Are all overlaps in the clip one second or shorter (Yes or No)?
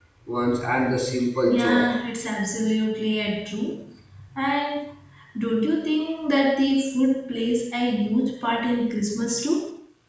Yes